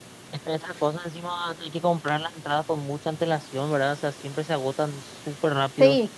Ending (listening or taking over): taking over